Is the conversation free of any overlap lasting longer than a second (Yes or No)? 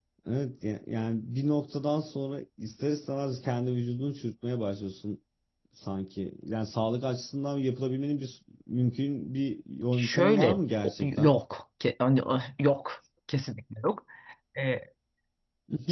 No